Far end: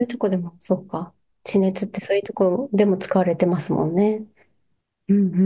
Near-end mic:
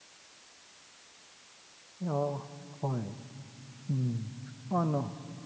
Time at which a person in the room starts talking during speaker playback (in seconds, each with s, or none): 2.0 s